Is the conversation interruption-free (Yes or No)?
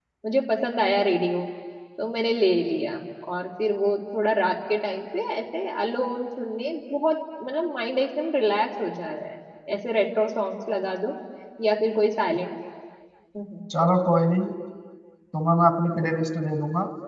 Yes